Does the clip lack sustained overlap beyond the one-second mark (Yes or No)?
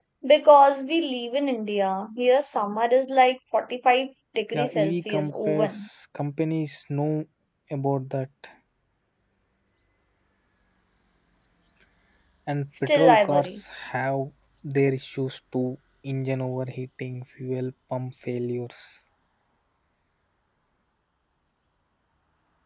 No